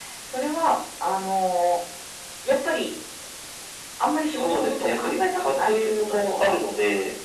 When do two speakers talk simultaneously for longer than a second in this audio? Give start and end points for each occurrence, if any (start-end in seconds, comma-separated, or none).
4.4-6.5